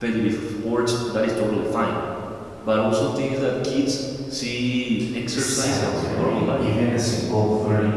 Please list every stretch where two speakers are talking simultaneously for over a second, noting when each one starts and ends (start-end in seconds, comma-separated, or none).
5.3-6.7